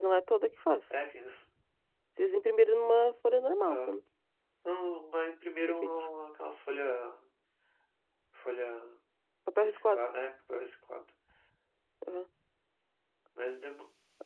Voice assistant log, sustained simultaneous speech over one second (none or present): none